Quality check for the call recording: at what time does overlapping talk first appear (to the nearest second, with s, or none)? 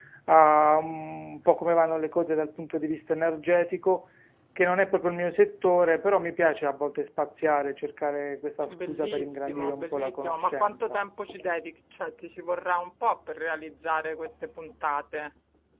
9 s